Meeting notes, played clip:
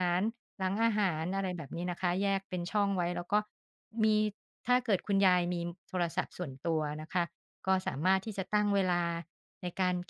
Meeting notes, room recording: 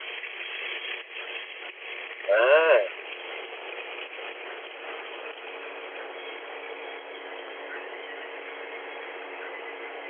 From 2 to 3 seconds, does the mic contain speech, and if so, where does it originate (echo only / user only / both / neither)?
user only